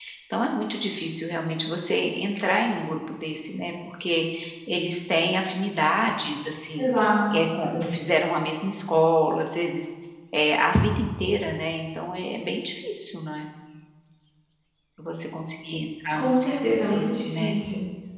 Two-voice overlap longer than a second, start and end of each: 16.1-17.5

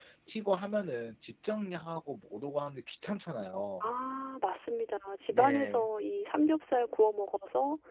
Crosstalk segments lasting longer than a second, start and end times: none

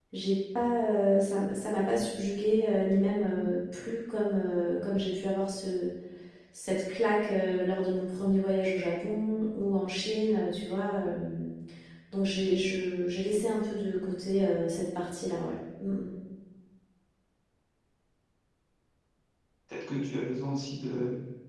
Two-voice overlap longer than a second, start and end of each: none

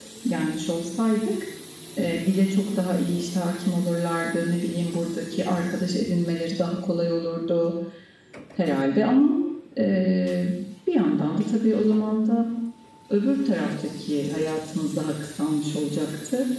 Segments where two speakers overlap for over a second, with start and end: none

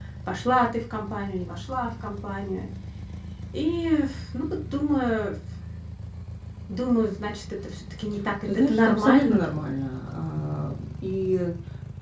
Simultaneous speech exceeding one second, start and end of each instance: 8.5-9.7

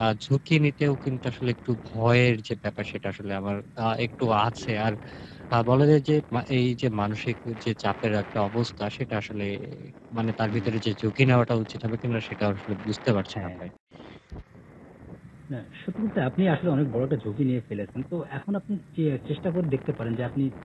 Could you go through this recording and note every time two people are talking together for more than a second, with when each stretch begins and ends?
none

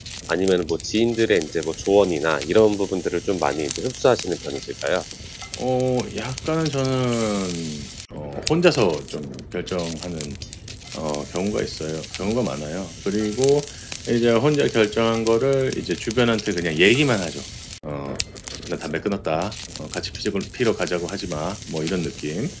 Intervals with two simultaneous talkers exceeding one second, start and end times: none

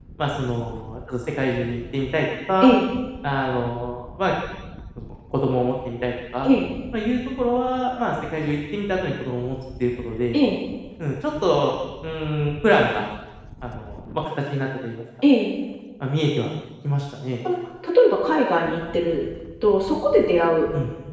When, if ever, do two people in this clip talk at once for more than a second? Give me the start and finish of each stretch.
none

